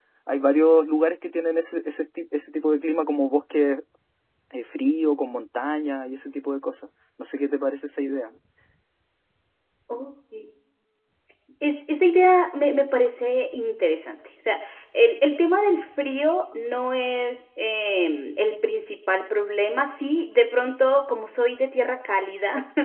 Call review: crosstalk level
none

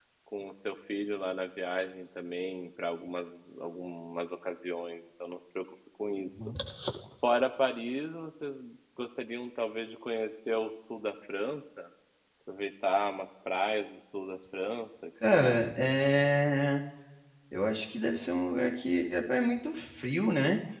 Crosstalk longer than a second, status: none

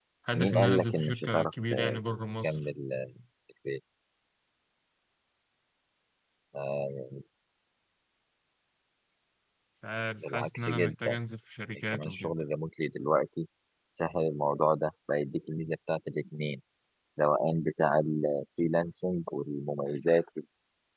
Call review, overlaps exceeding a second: present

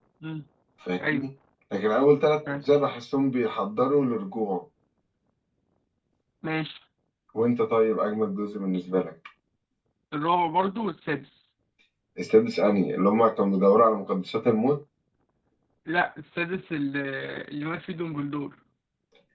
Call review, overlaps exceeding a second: none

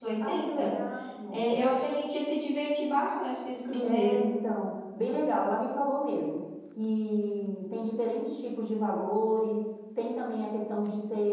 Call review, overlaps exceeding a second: none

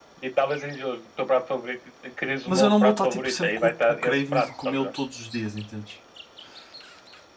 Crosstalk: present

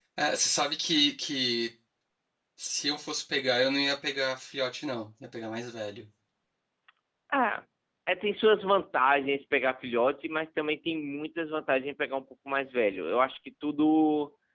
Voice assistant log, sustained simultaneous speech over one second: none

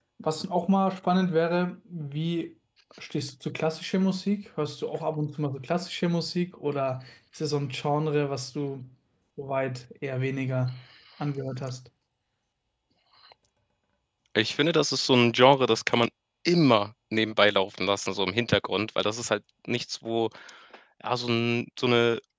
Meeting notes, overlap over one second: none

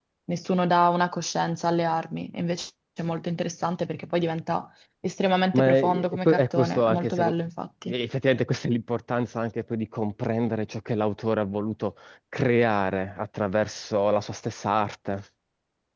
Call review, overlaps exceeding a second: present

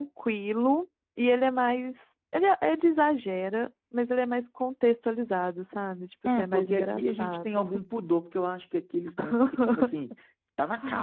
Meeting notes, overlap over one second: present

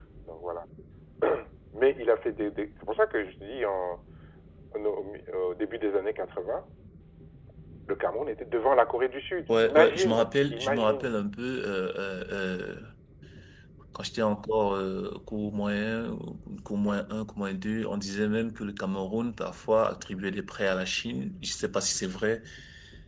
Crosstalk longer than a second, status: present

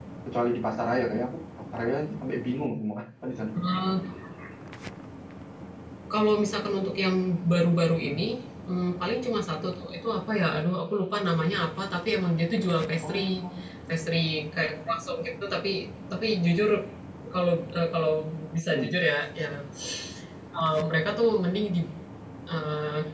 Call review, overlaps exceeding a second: none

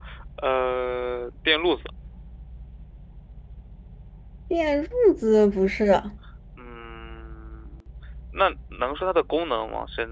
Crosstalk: none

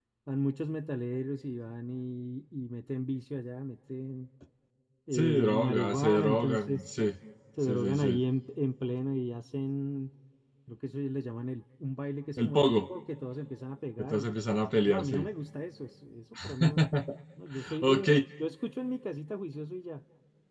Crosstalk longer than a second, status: present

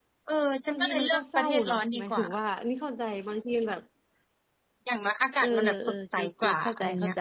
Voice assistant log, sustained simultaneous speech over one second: present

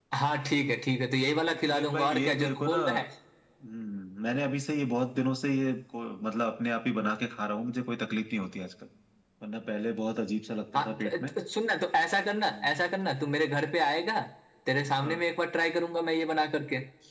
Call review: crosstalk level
present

